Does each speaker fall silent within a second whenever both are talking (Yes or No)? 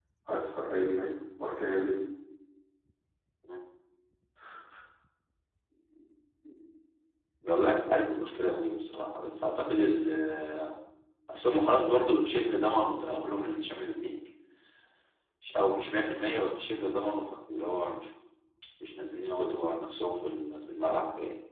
Yes